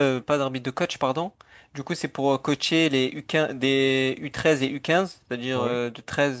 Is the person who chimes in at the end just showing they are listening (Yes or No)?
Yes